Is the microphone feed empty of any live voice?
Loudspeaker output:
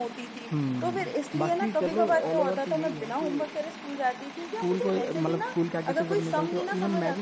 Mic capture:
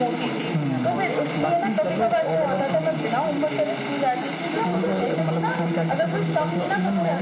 No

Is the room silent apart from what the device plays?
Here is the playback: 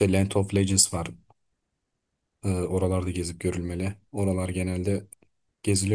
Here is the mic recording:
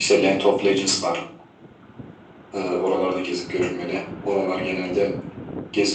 Yes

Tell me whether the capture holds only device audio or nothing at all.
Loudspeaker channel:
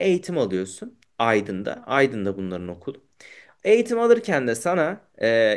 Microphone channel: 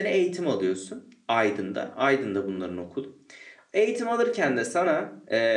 Yes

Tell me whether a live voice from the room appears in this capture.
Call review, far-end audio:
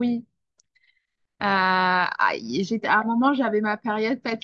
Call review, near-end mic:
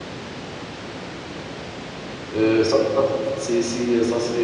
Yes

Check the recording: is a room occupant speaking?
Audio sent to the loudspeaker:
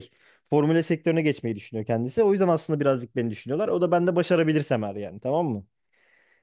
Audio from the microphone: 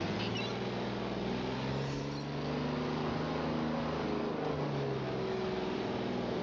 No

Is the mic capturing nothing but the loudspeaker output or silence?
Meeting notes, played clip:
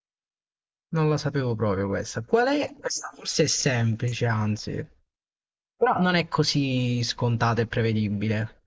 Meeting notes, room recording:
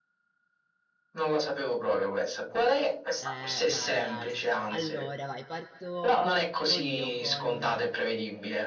No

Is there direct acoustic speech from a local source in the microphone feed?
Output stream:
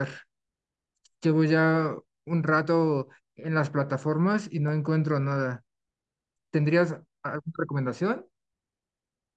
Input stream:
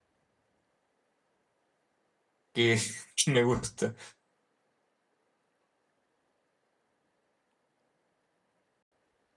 Yes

